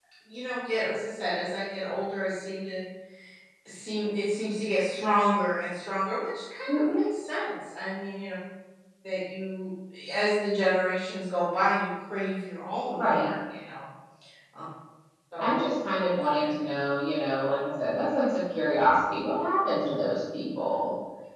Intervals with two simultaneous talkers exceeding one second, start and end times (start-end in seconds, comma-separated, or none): none